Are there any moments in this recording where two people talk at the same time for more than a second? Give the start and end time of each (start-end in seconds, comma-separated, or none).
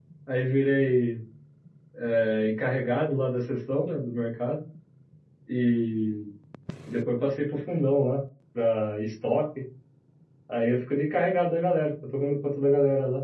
none